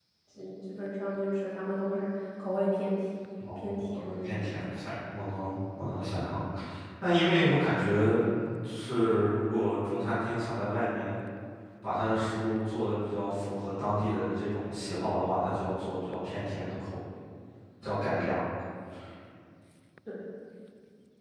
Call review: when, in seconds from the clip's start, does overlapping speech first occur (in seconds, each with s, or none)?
3.4 s